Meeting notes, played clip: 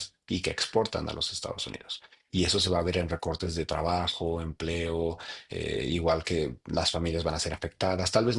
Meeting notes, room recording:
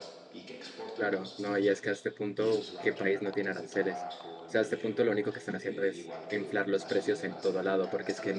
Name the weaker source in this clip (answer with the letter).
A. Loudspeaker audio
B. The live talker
A